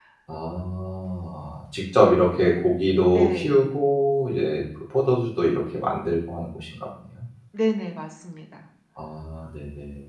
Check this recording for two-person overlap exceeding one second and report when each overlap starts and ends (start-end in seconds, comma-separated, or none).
none